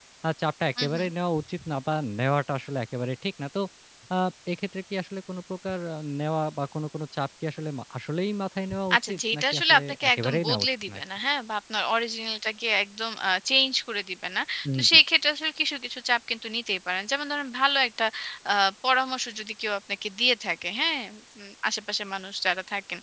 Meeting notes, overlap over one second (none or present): present